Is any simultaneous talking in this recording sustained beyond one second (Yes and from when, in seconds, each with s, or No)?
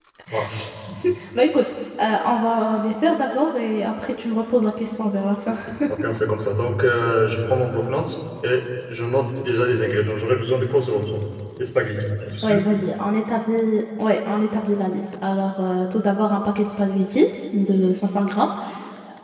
No